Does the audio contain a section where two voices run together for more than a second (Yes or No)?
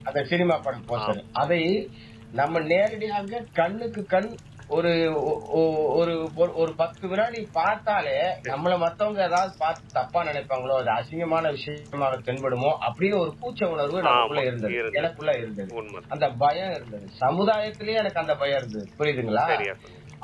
No